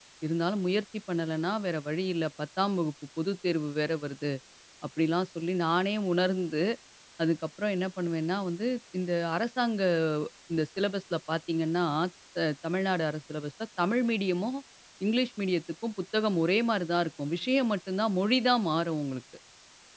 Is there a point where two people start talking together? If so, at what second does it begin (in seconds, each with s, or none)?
none